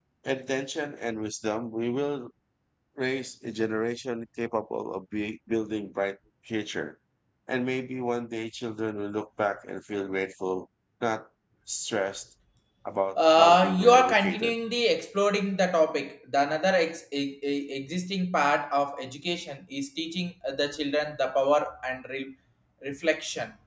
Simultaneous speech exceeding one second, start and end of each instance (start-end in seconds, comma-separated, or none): 13.2-14.6